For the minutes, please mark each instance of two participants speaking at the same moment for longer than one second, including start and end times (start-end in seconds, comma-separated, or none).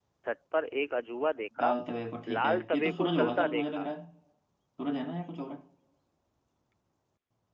2.3-3.9